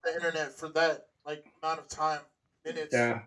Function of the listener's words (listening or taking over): taking over